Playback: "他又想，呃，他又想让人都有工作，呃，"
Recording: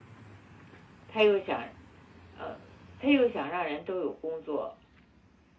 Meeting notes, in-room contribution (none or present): none